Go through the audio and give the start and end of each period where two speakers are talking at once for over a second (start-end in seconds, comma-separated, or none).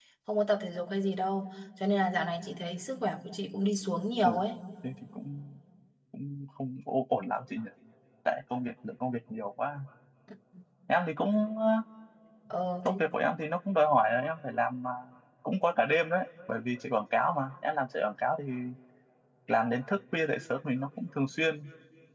none